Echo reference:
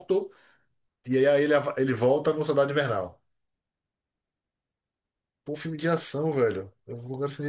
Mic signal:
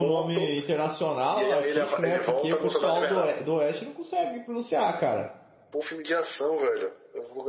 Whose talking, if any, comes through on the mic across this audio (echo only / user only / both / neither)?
both